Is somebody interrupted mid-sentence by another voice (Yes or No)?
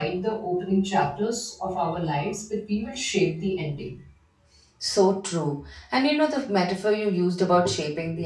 No